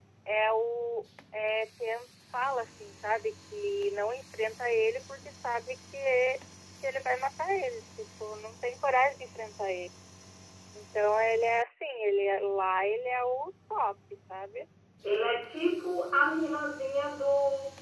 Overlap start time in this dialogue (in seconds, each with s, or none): none